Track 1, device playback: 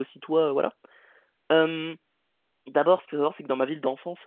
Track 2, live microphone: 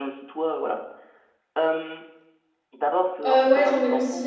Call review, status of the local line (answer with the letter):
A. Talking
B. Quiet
A